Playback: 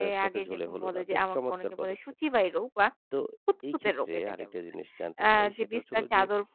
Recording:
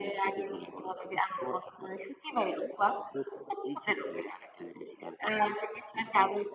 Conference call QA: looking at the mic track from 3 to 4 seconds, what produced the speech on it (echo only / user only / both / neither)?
echo only